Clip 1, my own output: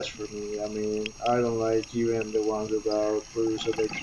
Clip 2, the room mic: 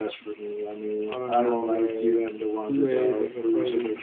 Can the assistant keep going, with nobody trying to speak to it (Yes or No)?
No